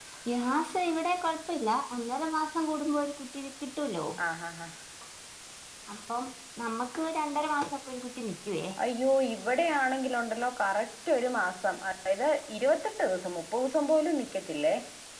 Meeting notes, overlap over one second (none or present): none